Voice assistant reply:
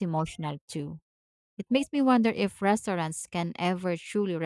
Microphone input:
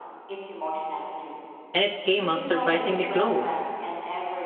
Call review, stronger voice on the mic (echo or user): user